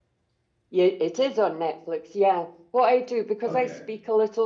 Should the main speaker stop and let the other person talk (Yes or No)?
No